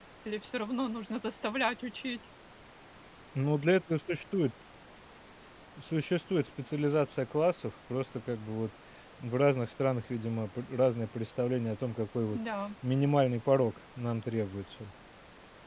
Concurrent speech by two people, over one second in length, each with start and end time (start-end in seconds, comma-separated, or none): none